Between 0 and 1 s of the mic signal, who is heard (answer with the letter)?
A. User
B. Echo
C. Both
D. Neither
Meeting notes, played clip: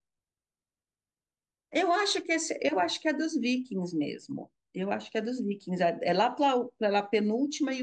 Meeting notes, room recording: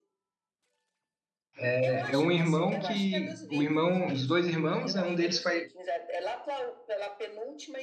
D